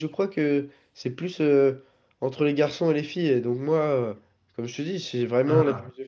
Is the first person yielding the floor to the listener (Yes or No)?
No